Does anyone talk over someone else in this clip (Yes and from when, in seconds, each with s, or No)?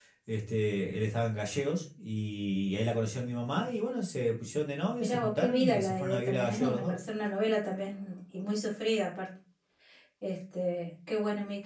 Yes, from 5.0 s